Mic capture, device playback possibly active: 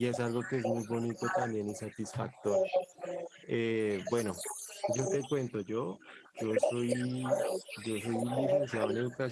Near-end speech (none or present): present